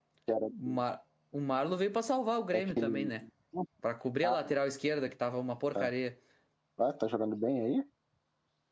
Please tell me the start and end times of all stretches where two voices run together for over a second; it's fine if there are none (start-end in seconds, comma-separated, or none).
none